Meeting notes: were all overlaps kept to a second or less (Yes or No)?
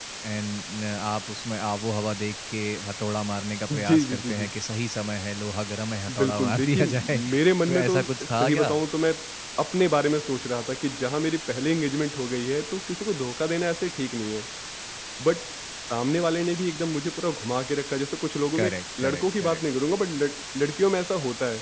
No